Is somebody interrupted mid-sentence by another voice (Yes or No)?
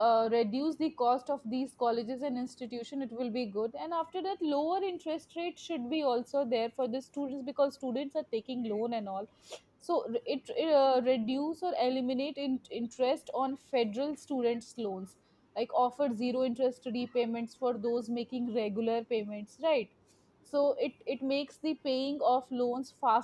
No